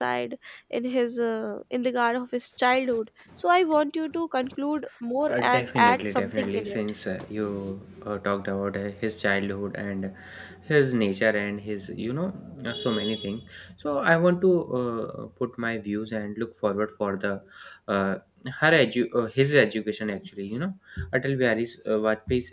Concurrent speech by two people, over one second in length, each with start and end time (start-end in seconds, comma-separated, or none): 5.3-6.8